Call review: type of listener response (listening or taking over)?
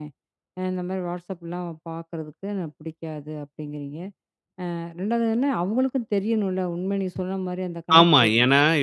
taking over